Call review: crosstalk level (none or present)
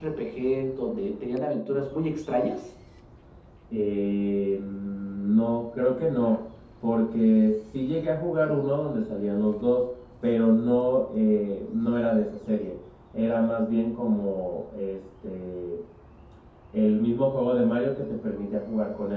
none